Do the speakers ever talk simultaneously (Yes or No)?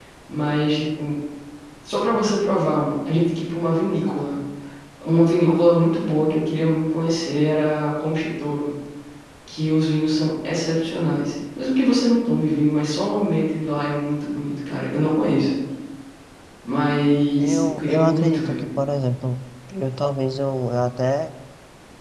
Yes